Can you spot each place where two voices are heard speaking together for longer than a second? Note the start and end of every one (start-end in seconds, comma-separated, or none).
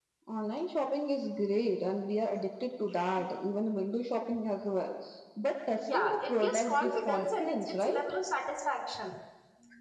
5.8-8.0